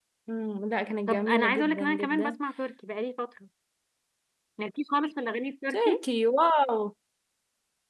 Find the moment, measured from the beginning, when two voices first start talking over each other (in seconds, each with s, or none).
1.1 s